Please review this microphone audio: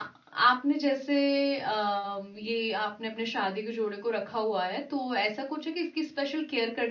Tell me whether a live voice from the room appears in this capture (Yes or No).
Yes